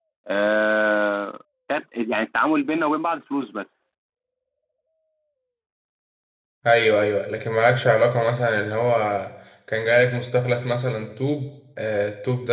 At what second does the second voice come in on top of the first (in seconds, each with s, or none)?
none